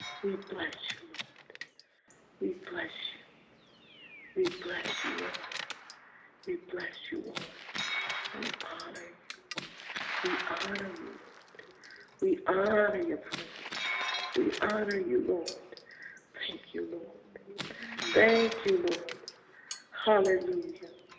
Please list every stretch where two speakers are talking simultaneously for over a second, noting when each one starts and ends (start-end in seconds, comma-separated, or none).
none